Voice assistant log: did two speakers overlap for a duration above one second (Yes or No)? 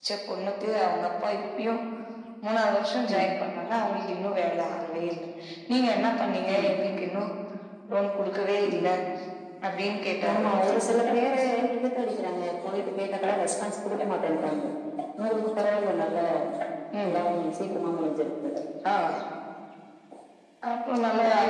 No